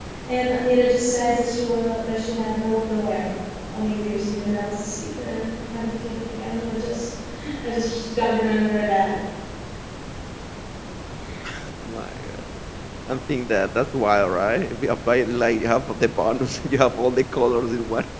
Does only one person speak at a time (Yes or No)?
Yes